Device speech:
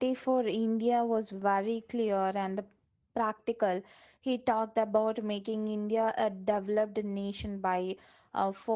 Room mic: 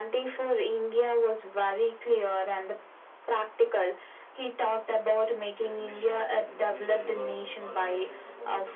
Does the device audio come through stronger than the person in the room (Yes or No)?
Yes